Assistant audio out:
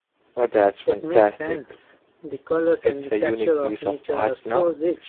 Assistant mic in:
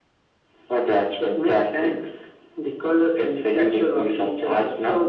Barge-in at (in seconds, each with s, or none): none